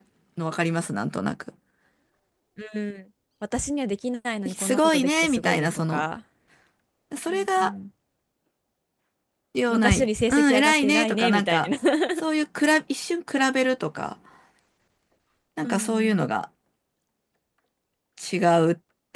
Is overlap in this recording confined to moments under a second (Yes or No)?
No